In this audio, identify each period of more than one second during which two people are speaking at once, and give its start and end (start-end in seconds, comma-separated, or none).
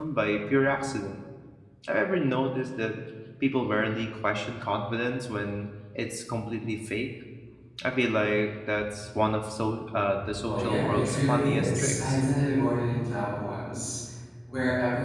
10.4-12.2